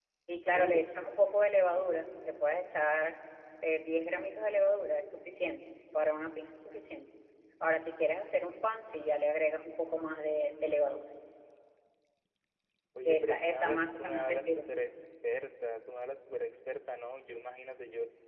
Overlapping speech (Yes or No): Yes